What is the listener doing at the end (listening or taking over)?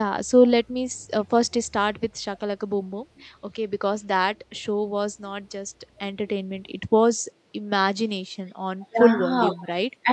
taking over